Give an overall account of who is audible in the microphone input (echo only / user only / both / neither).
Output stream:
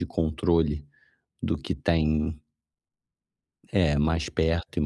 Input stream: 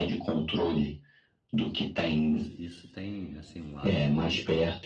both